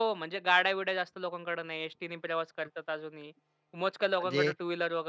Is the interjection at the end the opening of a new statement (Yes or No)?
No